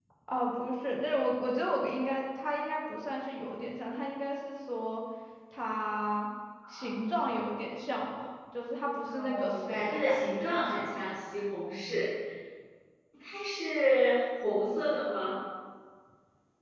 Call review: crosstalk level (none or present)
present